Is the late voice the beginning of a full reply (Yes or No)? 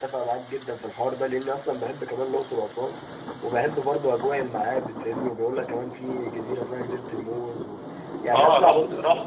Yes